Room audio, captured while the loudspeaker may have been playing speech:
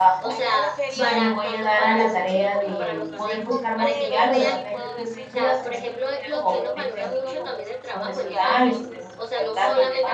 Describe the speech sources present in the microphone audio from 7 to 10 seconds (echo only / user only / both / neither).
both